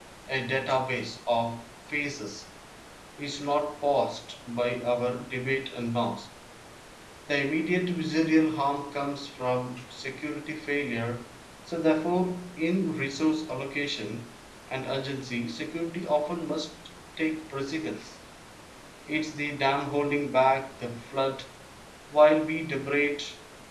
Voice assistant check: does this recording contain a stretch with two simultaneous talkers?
No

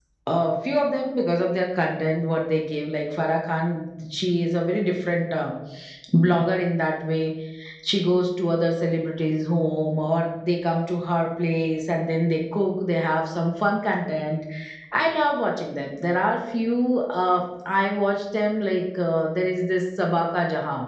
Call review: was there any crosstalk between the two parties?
No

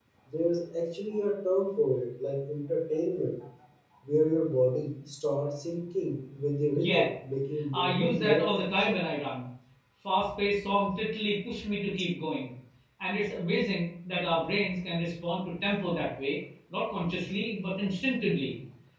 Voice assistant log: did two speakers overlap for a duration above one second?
Yes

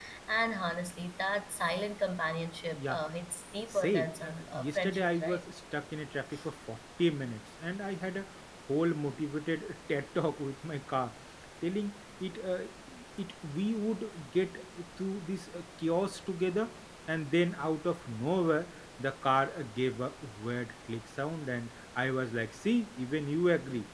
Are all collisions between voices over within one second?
No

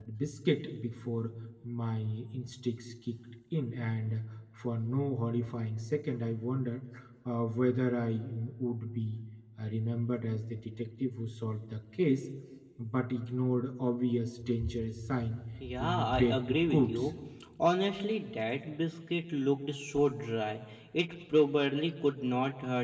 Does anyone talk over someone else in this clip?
Yes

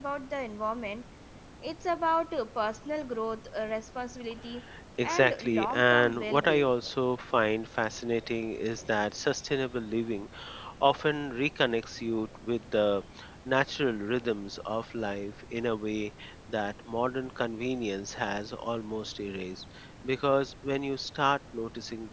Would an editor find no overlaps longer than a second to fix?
No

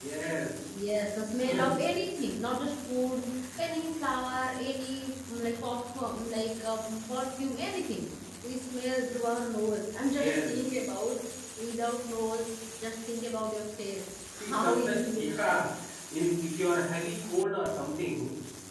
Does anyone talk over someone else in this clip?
Yes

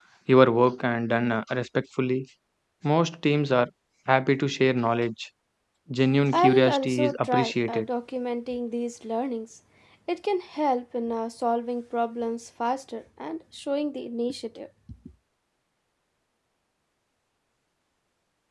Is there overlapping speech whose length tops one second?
Yes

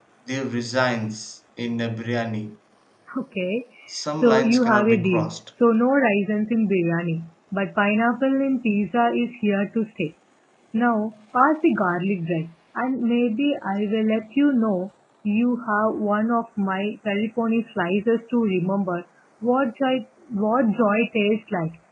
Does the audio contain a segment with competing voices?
Yes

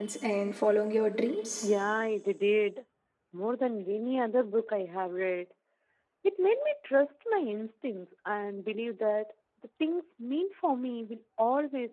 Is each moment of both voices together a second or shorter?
Yes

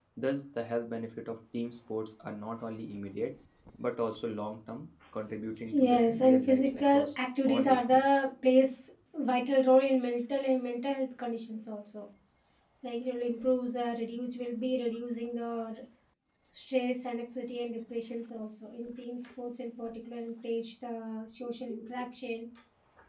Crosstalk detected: Yes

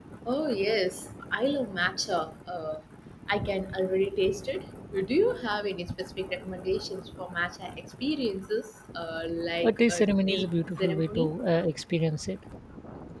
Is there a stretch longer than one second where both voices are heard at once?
Yes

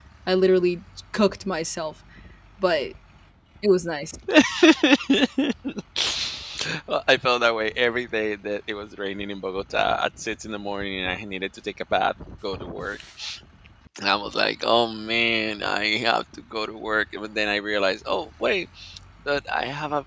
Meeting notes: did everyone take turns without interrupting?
Yes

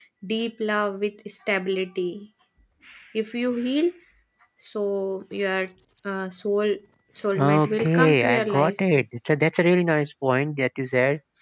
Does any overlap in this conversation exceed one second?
Yes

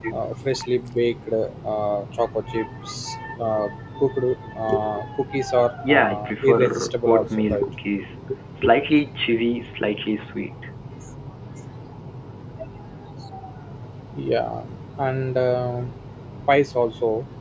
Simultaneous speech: Yes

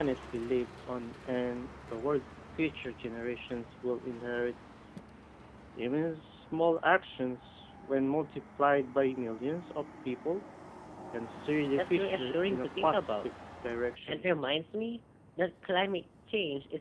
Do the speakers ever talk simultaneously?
Yes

